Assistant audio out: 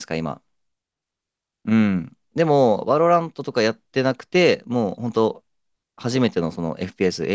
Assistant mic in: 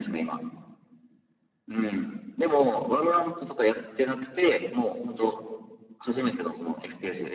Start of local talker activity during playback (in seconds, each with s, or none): none